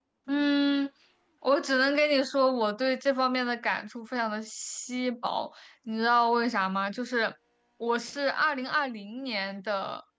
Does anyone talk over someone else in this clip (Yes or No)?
No